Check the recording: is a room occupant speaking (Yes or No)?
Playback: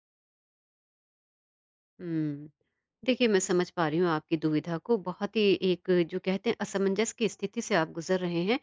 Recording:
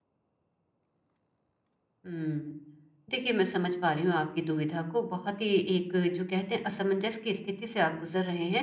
No